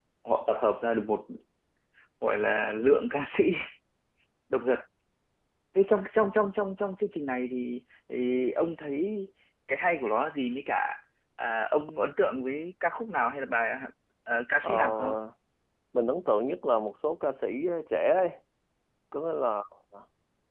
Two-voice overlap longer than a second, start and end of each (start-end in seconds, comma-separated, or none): none